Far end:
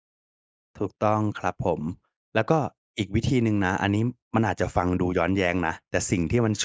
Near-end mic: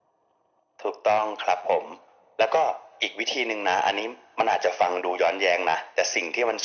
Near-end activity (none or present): none